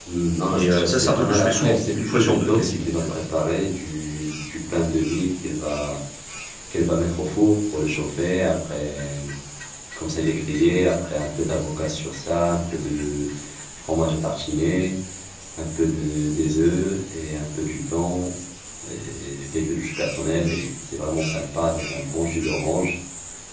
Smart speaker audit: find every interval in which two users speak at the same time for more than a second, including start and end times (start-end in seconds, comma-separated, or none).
0.5-3.2